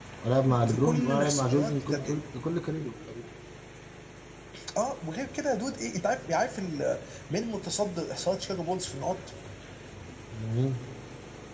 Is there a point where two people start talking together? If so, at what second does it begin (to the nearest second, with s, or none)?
1 s